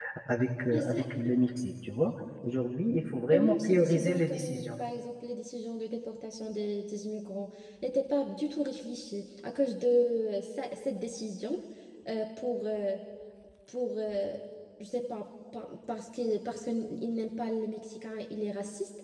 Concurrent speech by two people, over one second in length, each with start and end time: 3.3-4.7

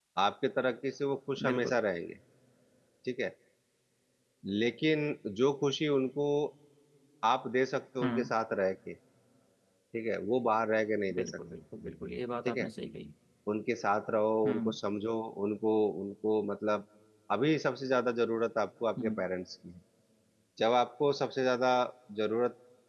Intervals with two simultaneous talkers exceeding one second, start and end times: none

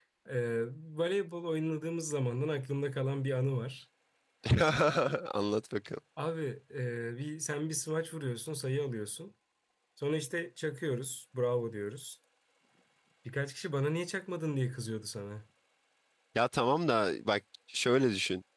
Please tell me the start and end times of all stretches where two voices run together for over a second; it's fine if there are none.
none

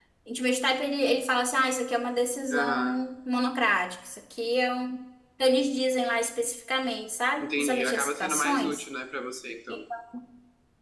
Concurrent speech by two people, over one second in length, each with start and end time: 7.4-8.9

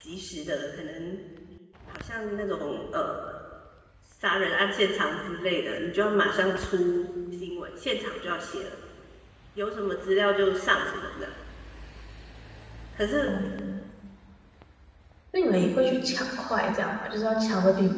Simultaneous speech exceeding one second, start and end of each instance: none

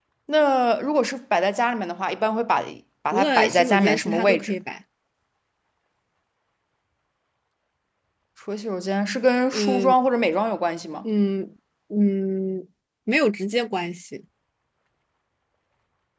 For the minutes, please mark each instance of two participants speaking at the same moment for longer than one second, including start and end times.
3.1-4.5

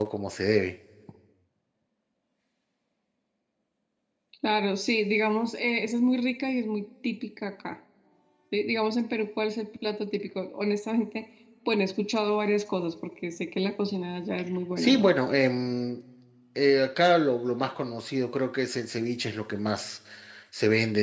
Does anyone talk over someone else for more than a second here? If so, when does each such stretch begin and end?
none

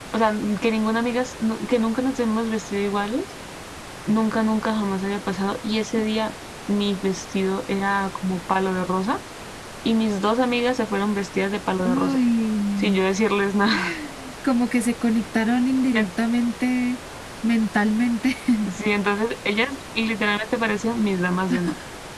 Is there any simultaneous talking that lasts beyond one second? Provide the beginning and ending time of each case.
none

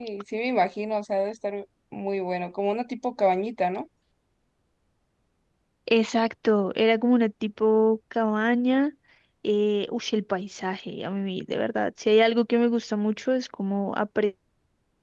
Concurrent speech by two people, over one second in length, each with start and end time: none

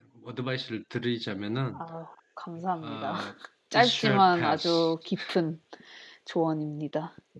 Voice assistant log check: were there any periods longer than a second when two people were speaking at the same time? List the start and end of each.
3.7-4.9

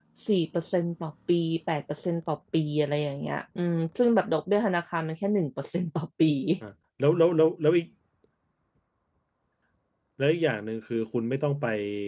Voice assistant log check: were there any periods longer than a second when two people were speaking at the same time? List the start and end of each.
none

